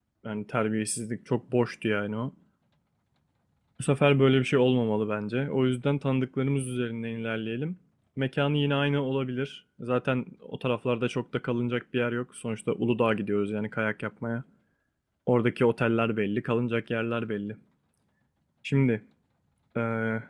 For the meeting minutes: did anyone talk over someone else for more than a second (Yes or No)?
No